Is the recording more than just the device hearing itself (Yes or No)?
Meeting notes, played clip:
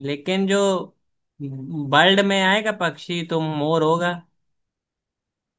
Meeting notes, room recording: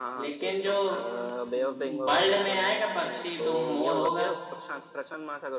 Yes